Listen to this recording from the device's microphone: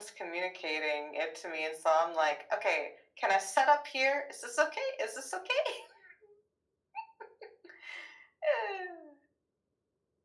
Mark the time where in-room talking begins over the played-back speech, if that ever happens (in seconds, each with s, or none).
none